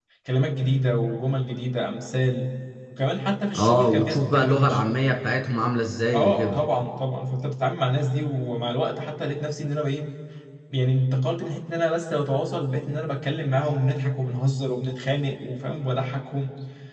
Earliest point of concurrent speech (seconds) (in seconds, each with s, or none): 3.6 s